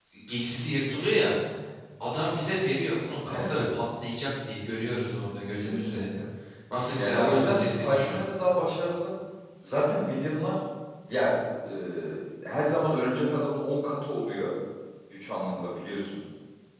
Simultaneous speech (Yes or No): Yes